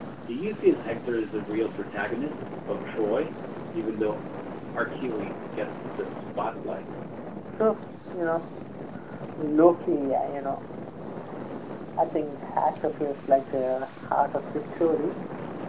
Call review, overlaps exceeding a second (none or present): none